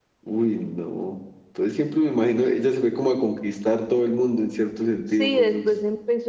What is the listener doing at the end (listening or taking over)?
taking over